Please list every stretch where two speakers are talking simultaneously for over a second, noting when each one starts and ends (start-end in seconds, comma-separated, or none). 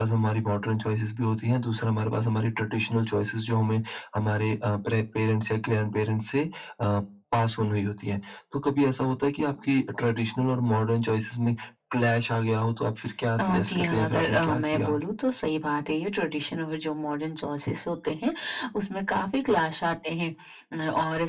13.4-15.0